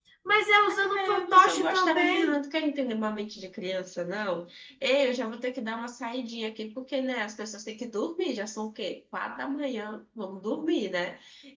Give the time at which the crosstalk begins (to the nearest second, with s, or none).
1 s